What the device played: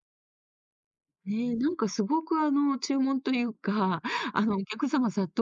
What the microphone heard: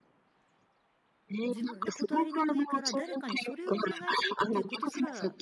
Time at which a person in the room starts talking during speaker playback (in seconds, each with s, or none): 1.4 s